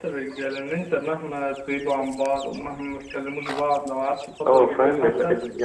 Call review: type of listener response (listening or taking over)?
taking over